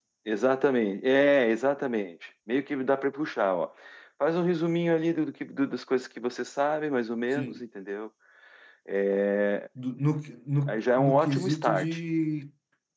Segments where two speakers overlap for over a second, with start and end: 10.7-12.0

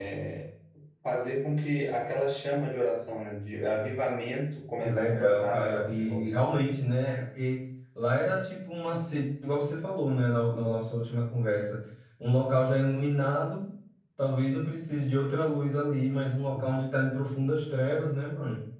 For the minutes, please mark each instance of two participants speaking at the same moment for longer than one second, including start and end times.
4.8-6.5

